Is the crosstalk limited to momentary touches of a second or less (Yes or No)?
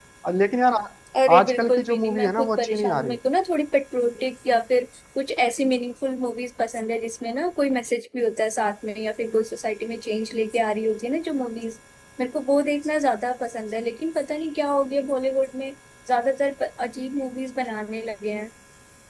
No